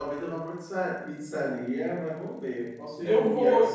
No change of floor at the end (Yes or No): Yes